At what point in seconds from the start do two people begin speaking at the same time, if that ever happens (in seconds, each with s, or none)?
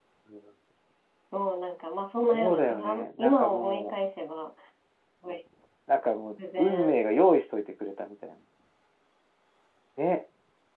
2.3 s